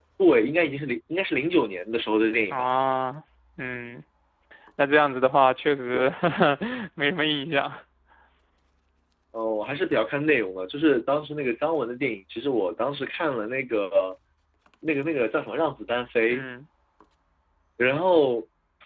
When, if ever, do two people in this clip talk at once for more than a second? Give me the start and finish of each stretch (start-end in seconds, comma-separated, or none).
none